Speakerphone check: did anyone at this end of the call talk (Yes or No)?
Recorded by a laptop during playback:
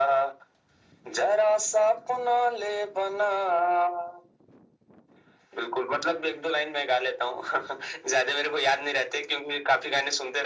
No